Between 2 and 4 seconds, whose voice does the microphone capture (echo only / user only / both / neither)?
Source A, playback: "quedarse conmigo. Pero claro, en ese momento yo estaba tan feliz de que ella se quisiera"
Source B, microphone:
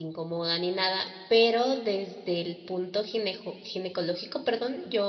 user only